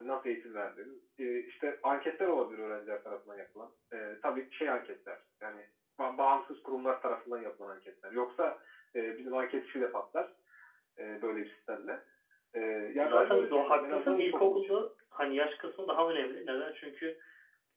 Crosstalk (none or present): present